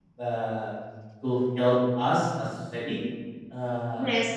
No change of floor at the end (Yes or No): No